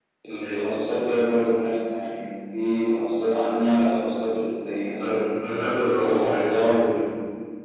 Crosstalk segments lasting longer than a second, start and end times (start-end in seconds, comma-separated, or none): none